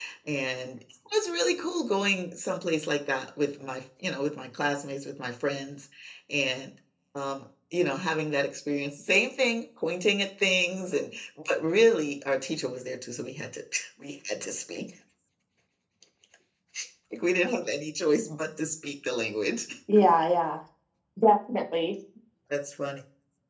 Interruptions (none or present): none